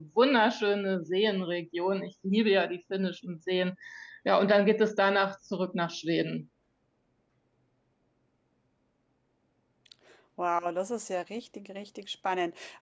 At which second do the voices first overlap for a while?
none

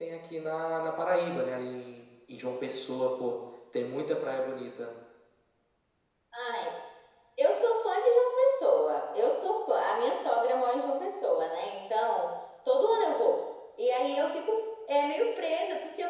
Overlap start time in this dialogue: none

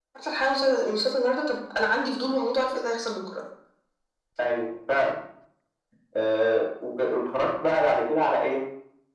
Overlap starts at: none

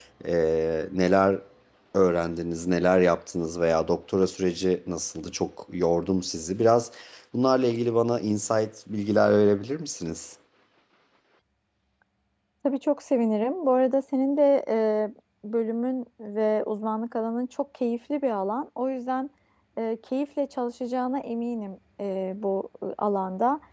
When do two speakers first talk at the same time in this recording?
none

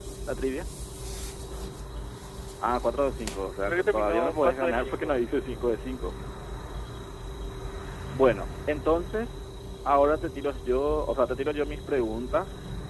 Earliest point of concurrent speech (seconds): 3.6 s

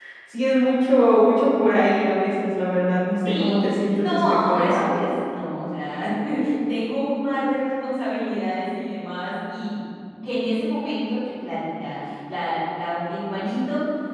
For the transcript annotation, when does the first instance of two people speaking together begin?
3.2 s

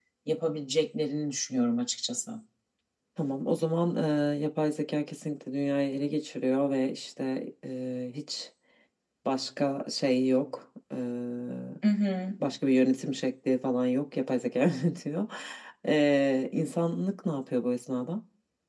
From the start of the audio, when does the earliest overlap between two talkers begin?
none

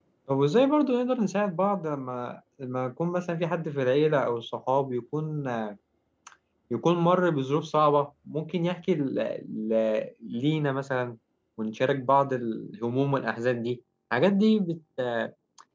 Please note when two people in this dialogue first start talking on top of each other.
none

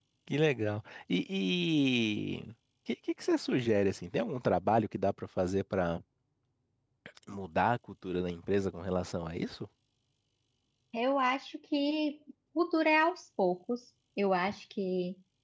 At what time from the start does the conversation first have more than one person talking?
none

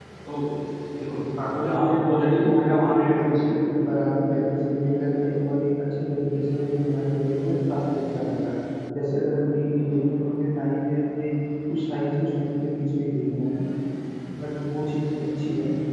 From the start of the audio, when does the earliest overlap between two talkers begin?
1.5 s

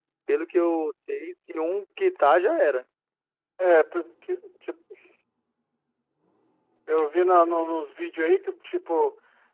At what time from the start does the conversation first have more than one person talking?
none

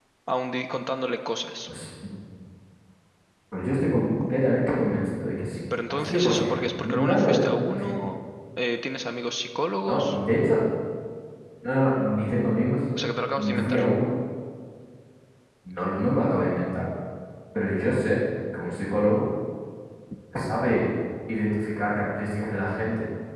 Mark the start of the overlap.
5.9 s

